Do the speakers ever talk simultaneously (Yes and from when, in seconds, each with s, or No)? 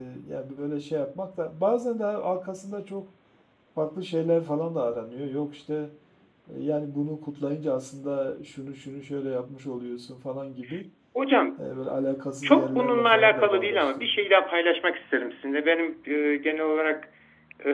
Yes, from 12.4 s